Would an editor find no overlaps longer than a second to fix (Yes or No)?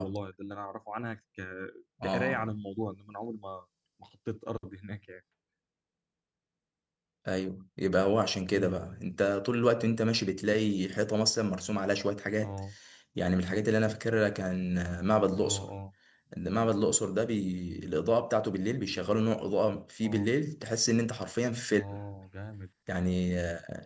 Yes